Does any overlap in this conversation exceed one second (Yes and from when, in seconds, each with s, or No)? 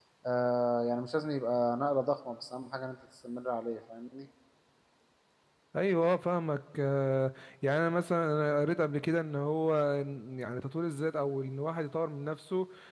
No